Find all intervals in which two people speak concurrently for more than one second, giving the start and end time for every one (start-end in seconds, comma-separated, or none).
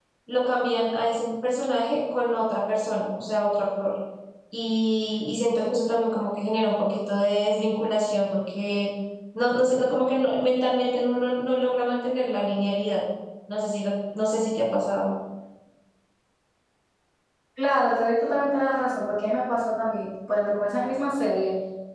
none